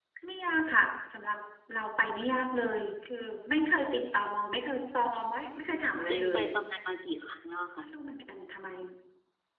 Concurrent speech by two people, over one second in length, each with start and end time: none

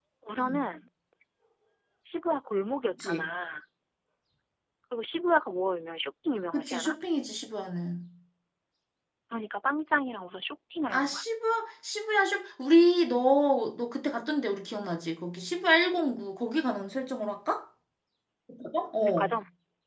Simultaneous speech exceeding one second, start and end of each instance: none

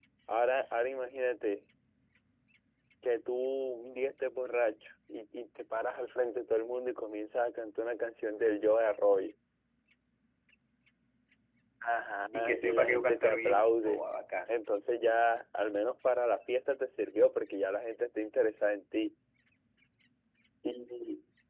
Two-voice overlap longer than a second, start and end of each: 12.4-14.0

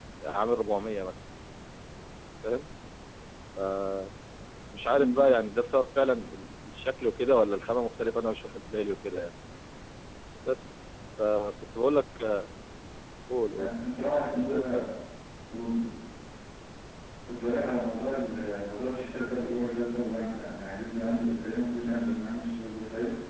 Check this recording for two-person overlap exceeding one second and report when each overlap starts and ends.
none

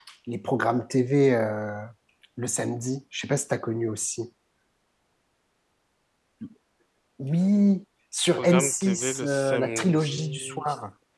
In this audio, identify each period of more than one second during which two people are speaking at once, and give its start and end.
8.4-10.6

